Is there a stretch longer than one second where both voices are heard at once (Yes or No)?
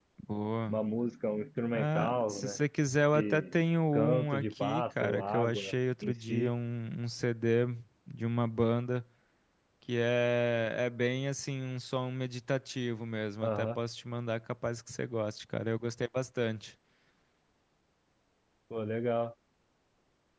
Yes